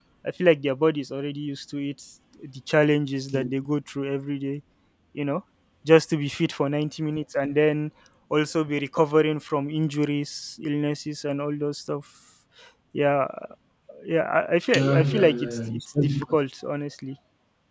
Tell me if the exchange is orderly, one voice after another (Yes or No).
No